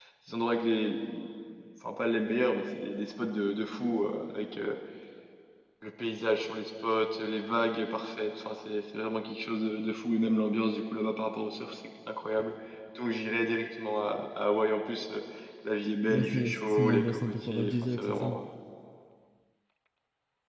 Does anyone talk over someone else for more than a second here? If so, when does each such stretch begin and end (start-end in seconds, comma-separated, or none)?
16.1-18.4